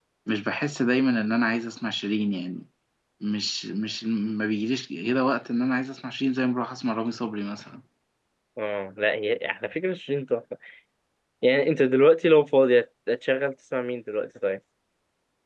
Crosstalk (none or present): none